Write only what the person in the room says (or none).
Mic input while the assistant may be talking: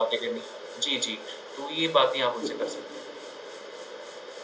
तो अ,